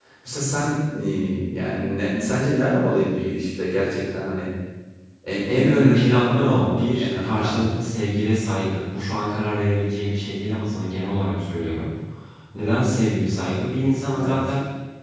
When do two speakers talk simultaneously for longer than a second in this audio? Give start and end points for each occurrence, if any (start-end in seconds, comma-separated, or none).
5.5-7.8